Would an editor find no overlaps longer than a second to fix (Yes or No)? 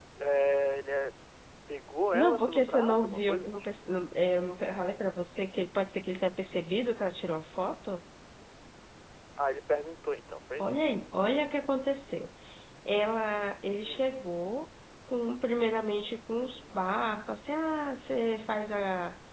No